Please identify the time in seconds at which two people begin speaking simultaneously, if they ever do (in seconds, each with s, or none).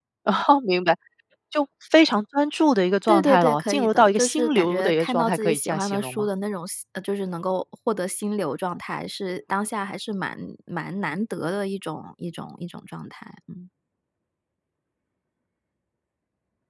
3.1 s